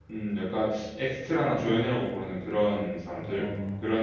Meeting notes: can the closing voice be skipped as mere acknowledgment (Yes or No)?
No